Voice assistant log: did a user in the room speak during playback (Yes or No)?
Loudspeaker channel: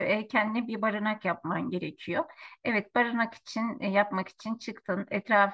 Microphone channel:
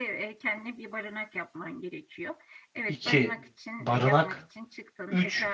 Yes